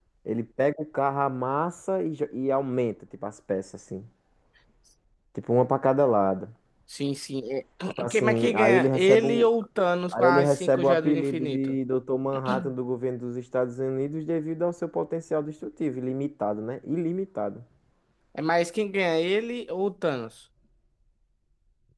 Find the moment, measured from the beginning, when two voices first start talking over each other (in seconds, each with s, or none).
8.1 s